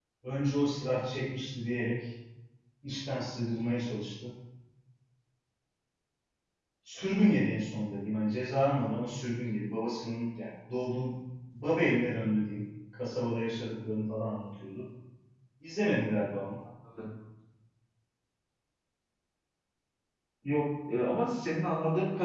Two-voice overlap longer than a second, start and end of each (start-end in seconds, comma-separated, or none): none